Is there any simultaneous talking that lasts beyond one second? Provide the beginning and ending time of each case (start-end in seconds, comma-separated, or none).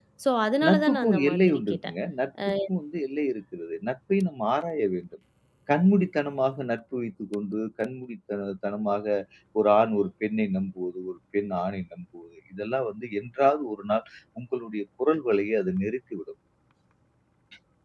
0.7-1.9